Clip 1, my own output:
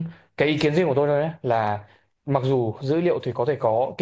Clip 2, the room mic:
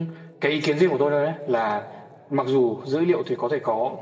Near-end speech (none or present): none